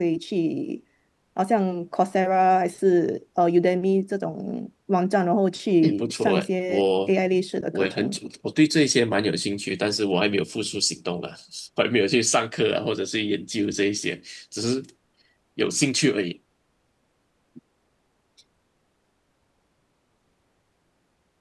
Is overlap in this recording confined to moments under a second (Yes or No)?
No